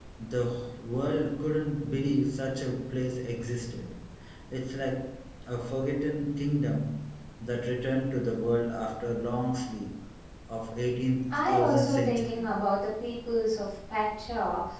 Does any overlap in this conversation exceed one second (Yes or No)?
Yes